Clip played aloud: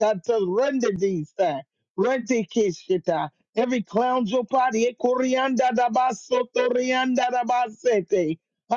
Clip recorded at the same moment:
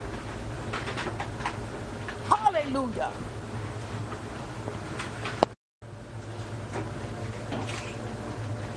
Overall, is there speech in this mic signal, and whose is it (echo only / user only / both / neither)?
user only